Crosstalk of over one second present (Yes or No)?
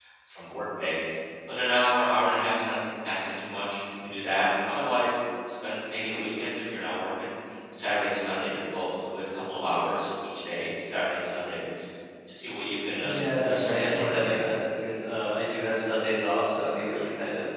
Yes